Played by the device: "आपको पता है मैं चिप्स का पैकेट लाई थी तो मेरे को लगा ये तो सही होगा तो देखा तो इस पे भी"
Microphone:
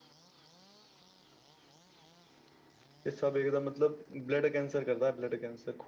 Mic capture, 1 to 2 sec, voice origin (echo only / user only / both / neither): neither